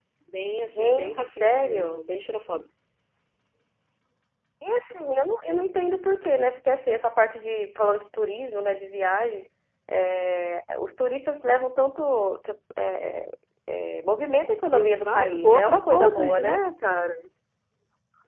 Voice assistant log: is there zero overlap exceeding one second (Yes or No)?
No